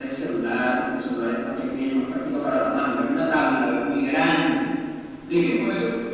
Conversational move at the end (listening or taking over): taking over